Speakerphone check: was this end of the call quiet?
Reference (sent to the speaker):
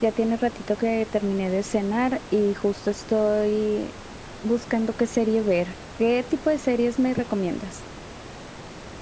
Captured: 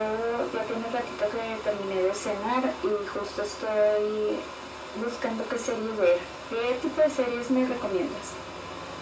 Yes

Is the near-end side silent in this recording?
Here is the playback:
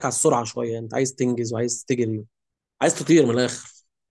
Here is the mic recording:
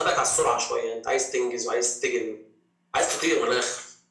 Yes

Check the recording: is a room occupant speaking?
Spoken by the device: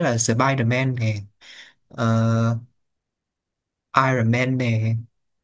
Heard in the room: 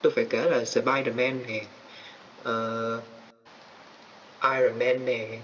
No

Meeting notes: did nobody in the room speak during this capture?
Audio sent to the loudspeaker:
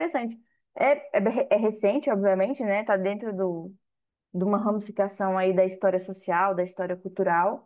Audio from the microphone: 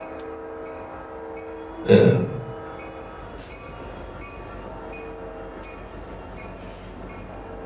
No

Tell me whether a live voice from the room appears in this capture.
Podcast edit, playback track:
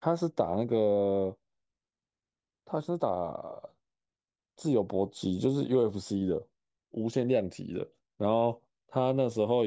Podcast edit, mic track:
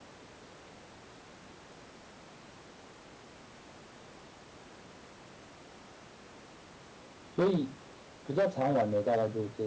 Yes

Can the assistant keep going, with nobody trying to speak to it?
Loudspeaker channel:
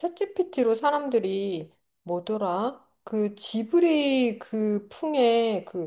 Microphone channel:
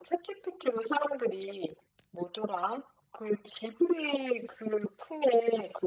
Yes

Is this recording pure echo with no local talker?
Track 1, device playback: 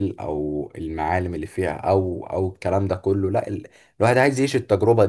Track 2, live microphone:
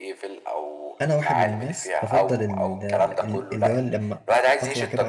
No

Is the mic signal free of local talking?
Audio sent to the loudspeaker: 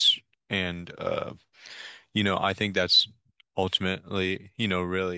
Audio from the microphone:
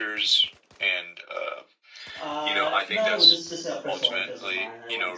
No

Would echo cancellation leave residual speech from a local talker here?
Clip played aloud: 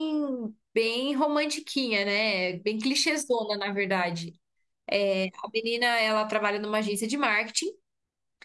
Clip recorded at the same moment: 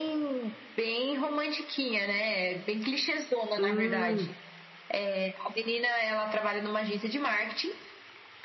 Yes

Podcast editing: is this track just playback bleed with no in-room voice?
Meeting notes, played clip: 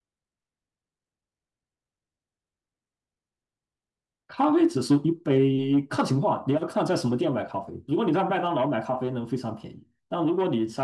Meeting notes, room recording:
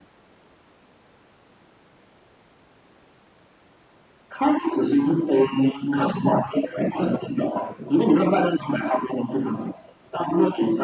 Yes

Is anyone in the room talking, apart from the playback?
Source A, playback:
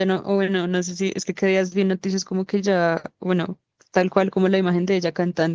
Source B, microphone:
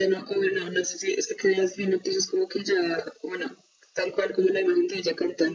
No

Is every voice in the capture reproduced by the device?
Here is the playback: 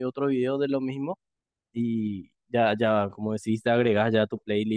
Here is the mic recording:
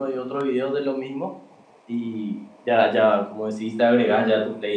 Yes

